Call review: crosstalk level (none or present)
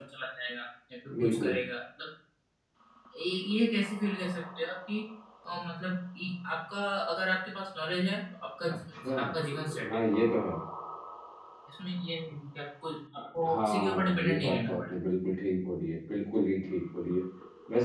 present